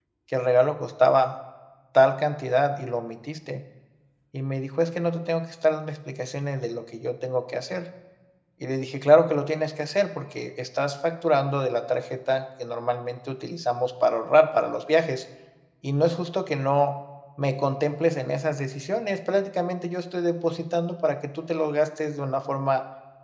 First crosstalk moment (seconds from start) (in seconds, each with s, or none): none